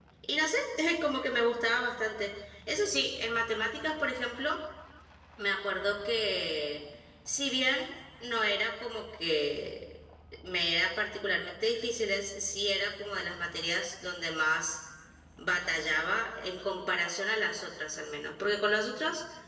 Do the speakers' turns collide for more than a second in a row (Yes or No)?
No